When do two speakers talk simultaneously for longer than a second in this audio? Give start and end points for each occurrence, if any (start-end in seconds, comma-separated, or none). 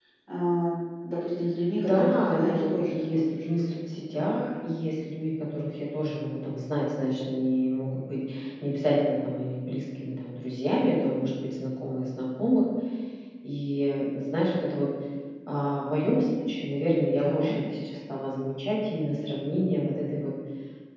1.7-3.6